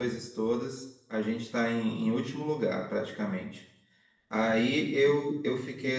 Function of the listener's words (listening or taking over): listening